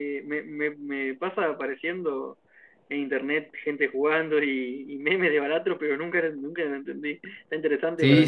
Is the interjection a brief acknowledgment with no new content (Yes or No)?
No